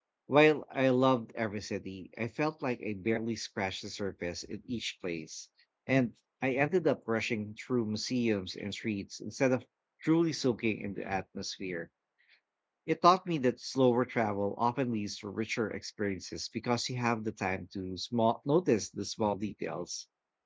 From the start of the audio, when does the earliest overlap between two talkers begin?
none

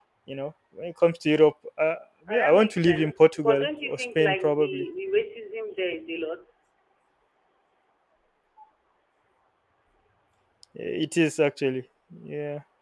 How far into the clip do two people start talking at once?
2 s

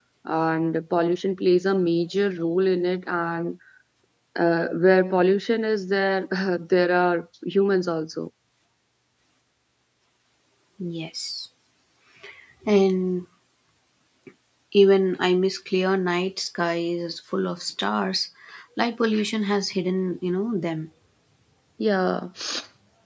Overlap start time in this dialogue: none

